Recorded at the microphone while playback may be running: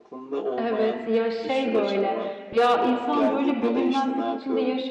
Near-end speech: present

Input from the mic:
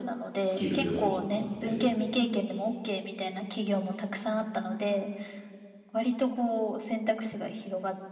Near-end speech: present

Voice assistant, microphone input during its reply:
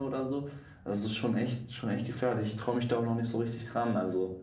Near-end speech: present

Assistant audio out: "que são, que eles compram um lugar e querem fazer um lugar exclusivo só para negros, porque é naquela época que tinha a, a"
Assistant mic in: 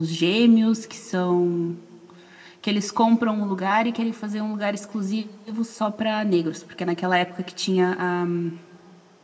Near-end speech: none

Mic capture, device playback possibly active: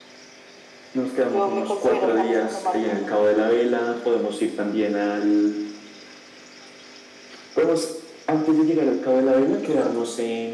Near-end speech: present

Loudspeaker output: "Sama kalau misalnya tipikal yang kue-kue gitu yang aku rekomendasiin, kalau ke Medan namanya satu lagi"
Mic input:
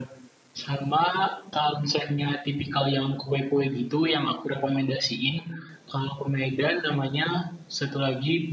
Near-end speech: none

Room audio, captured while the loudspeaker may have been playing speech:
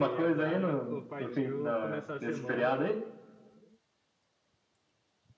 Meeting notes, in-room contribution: present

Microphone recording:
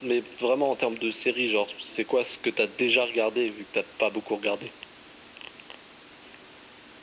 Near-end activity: none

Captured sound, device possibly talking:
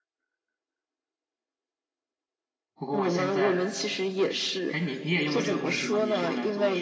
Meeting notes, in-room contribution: present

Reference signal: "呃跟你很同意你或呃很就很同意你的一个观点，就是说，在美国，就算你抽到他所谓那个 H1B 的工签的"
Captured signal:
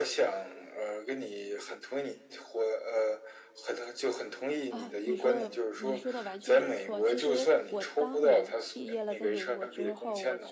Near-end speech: present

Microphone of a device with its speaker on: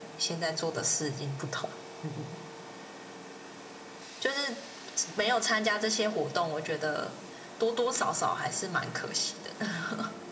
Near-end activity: none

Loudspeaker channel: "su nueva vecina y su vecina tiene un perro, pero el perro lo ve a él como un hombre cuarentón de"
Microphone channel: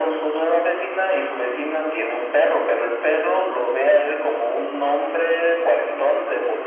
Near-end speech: none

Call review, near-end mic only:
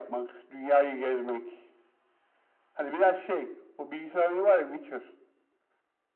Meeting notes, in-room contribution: none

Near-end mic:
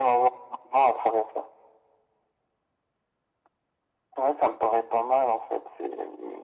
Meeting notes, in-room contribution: none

